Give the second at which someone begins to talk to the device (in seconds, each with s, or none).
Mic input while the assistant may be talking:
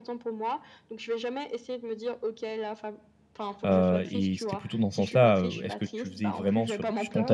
3.6 s